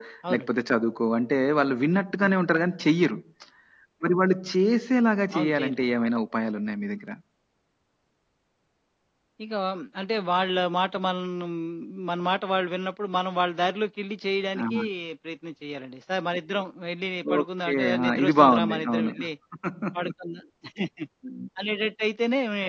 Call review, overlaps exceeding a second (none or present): present